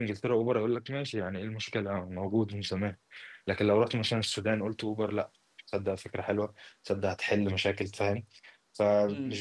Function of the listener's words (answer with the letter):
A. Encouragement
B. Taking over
A